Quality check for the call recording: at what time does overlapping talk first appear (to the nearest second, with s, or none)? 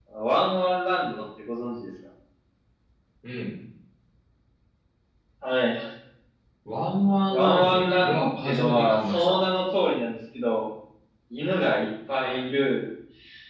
7 s